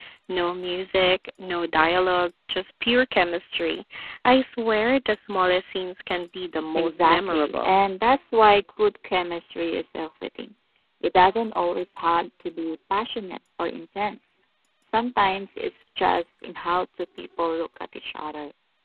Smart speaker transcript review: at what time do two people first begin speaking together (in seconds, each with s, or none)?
6.5 s